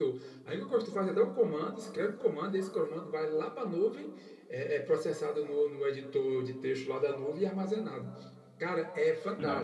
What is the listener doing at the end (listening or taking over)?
listening